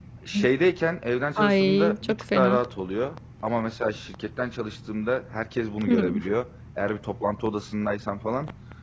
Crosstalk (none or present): present